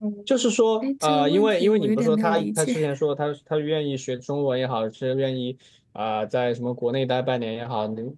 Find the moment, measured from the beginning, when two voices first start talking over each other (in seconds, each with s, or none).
0.8 s